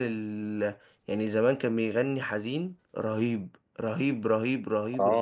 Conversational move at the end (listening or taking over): taking over